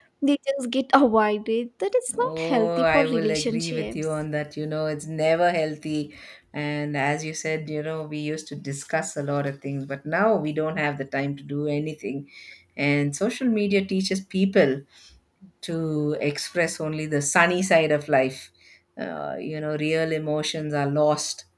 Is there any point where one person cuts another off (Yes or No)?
Yes